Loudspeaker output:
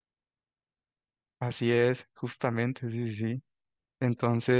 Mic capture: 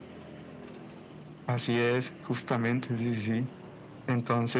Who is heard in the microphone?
echo only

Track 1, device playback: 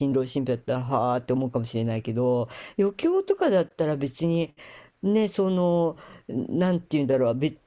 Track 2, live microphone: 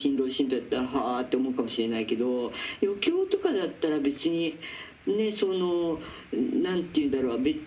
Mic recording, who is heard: echo only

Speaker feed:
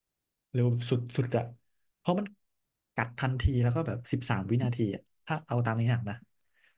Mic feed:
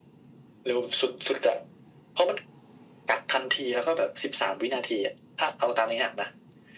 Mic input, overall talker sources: echo only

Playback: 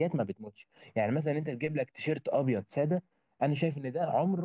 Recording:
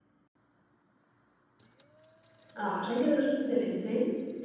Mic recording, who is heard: user only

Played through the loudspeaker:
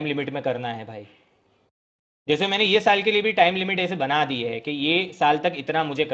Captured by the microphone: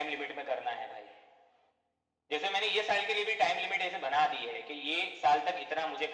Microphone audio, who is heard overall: echo only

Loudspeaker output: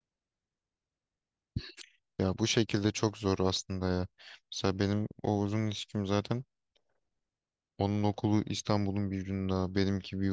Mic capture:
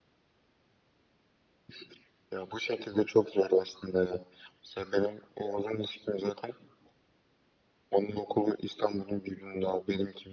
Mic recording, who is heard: echo only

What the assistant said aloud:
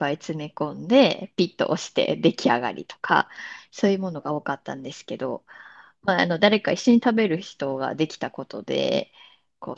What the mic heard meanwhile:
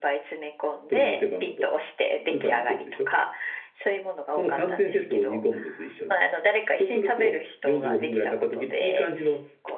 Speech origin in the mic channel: both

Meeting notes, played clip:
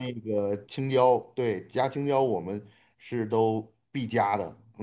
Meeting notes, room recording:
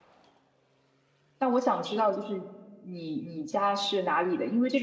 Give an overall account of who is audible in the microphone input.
user only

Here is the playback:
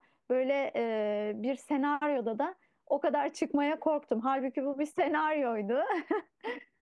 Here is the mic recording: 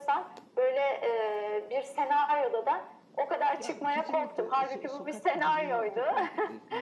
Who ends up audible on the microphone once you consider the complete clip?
both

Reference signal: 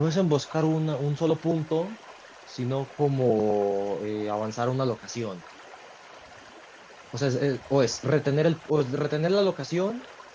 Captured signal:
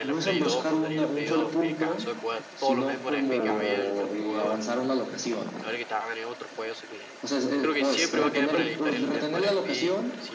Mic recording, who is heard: both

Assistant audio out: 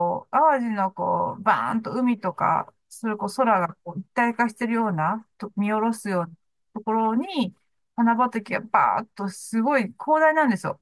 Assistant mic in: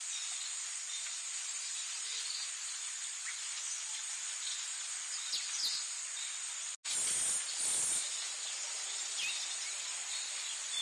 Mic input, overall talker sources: neither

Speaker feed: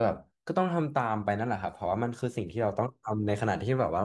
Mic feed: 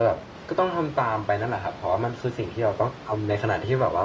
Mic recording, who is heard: echo only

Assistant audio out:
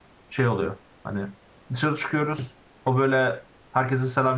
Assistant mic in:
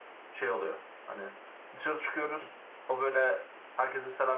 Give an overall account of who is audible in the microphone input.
echo only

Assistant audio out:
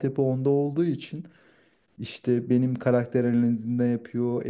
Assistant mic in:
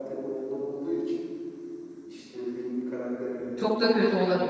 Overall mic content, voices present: both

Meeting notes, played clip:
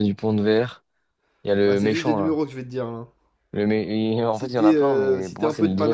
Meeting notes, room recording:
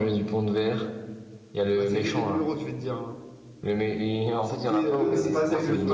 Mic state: both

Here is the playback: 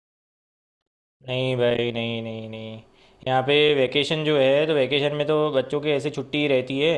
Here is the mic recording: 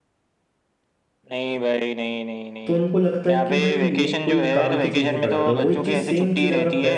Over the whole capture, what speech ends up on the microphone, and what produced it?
both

